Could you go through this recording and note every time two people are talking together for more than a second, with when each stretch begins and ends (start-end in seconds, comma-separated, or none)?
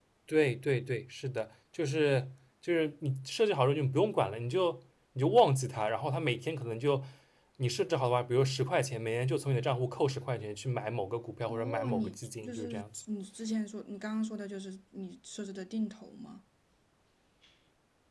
11.5-13.0